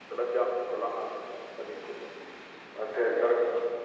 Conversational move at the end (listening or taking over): listening